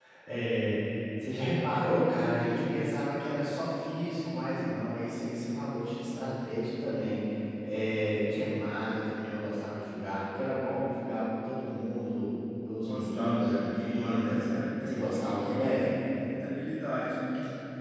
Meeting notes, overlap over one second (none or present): present